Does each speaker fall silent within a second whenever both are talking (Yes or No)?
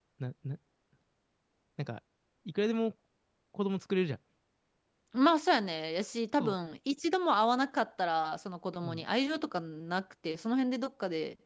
Yes